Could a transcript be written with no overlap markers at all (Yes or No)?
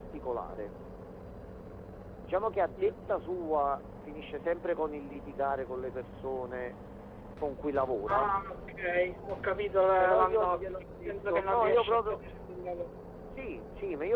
No